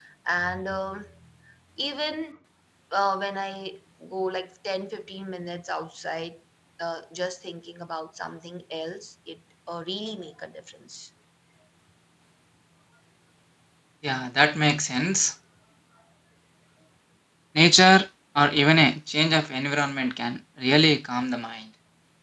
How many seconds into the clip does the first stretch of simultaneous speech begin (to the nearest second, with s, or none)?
none